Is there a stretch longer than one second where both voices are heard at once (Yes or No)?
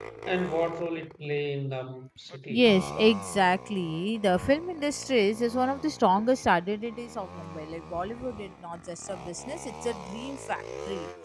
No